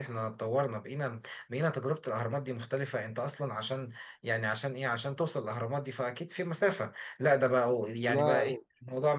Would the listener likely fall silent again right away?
Yes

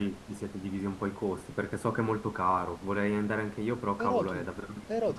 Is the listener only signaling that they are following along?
No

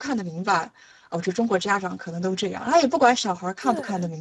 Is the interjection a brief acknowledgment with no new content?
Yes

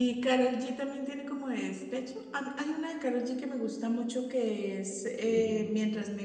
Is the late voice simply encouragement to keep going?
Yes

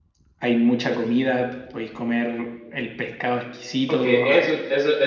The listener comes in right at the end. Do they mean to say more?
Yes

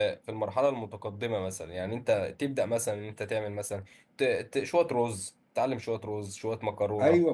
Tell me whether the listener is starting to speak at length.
Yes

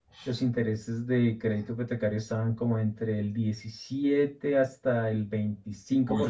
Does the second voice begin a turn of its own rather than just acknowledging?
Yes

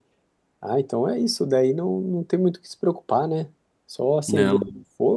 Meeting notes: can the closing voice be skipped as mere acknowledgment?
Yes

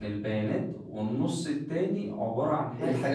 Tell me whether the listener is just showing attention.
Yes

